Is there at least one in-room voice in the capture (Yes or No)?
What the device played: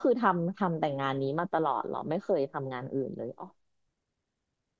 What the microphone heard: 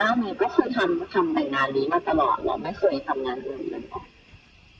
No